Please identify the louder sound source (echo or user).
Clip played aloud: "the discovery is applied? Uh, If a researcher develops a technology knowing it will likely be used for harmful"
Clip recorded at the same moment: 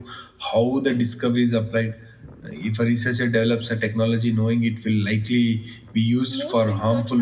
echo